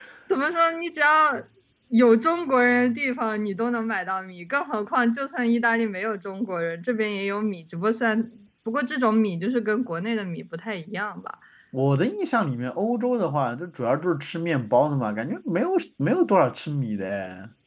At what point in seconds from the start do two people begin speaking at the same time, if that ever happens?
none

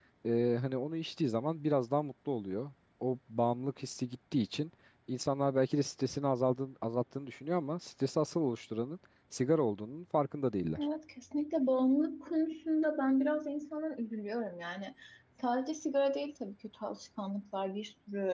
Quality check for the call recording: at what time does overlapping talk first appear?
none

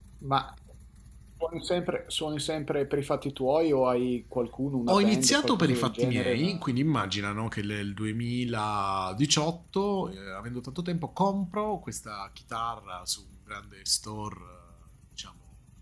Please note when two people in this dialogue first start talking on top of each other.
5 s

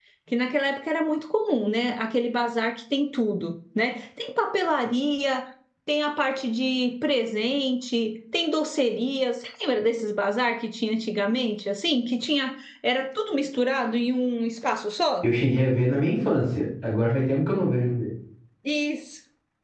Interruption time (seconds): none

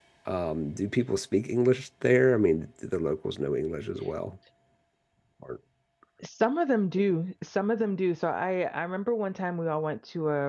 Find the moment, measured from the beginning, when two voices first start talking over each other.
none

